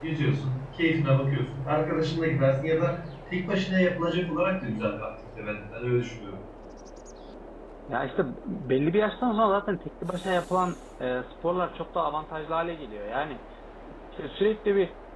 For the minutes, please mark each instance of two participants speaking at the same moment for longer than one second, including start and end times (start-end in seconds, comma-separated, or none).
none